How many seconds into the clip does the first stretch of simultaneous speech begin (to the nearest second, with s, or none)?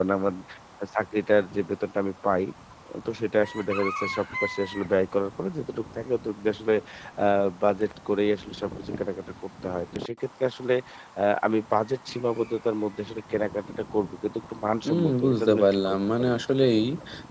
15 s